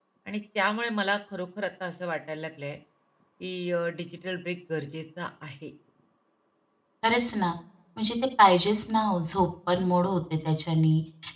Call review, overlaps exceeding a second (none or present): none